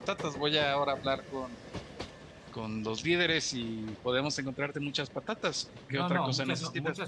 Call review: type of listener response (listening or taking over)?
taking over